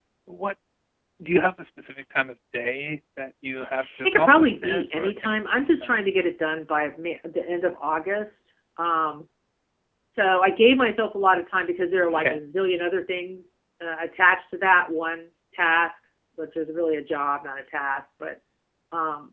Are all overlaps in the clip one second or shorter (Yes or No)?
No